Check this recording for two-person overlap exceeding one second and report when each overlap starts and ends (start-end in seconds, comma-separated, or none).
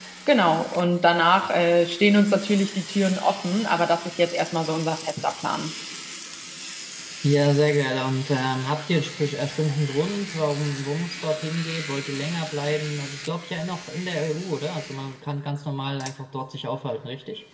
none